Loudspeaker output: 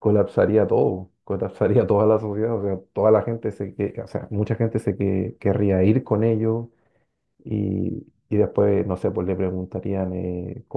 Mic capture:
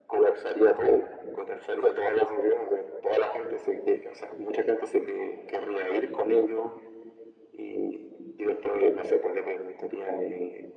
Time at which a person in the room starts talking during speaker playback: none

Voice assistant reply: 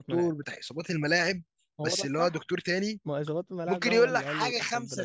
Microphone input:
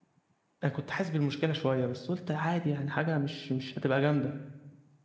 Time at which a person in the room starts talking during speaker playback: 0.6 s

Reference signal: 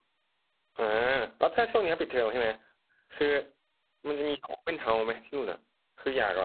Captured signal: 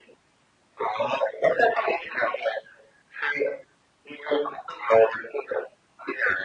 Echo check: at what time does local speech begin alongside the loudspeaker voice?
none

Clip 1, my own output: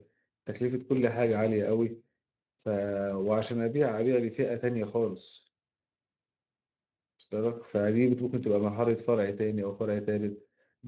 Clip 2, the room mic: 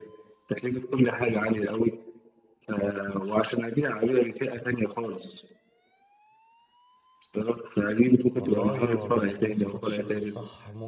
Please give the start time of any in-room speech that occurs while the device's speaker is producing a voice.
8.3 s

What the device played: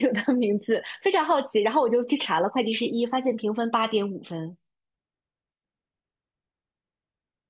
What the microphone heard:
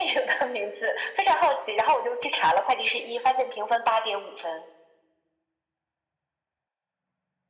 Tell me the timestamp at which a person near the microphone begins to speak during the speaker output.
none

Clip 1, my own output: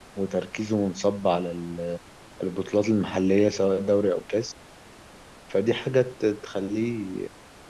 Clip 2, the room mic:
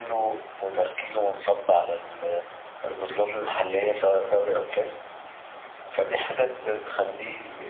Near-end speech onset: none

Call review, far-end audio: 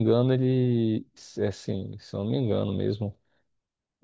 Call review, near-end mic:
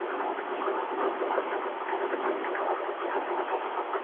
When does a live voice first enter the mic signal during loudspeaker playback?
none

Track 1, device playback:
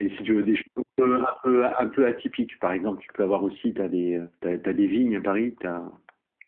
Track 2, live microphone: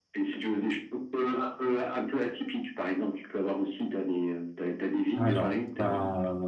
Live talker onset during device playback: 5.2 s

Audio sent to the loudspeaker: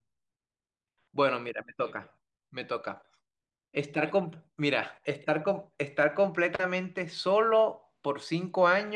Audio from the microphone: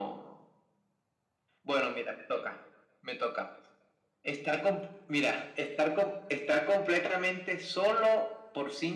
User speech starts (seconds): none

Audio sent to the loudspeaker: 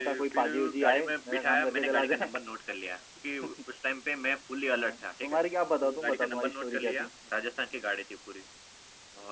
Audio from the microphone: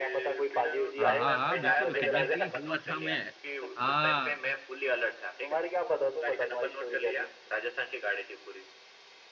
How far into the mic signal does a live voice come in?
1.0 s

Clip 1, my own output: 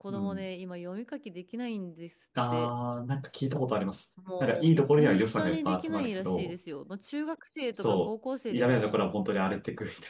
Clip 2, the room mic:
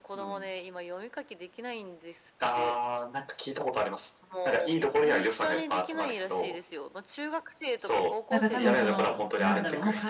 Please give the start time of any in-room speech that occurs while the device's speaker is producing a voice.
8.3 s

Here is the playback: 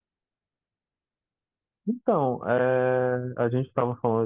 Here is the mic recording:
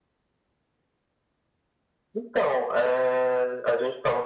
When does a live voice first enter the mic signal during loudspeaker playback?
none

